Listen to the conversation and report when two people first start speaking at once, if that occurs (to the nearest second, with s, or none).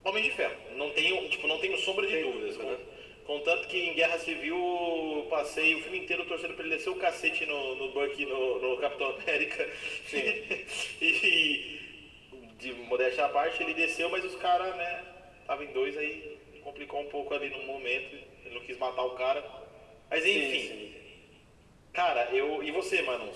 1 s